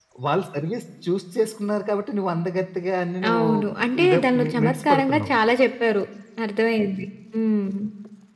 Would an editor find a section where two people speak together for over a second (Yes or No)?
Yes